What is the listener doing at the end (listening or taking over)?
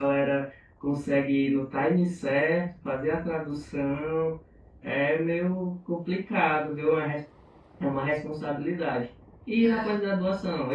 listening